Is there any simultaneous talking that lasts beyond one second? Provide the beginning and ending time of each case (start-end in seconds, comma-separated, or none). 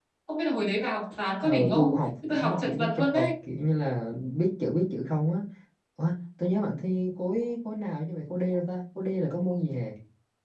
1.4-3.3